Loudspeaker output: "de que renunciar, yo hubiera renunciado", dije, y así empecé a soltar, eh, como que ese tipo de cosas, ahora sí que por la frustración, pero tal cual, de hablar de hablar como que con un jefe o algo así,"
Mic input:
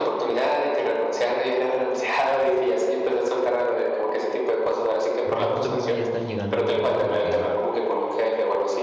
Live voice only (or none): porque justo creo que ya están llegando en un punto en el que